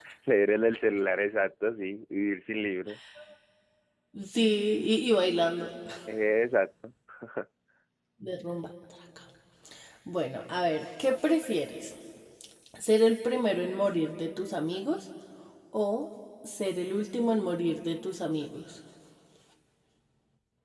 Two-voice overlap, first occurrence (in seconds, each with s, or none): none